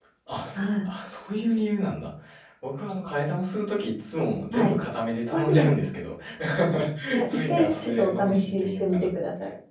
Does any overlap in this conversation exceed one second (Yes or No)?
Yes